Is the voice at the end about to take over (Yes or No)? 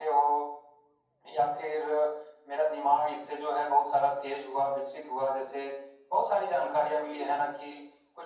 No